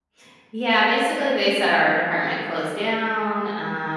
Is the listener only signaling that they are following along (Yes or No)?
Yes